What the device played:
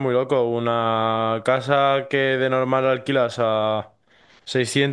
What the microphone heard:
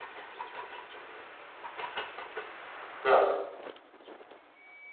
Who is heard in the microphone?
user only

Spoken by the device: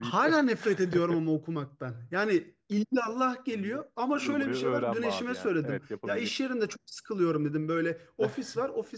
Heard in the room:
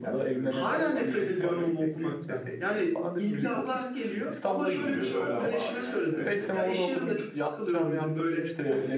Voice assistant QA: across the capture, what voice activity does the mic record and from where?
both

